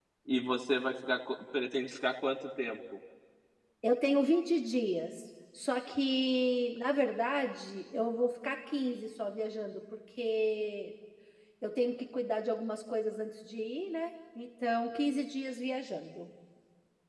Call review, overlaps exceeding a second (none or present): none